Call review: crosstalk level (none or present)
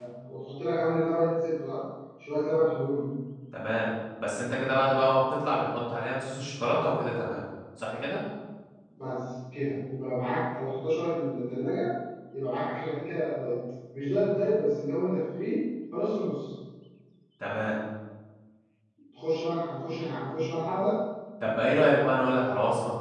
none